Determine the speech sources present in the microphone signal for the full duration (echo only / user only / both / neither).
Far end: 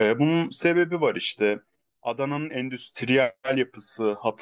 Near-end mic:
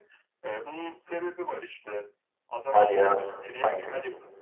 both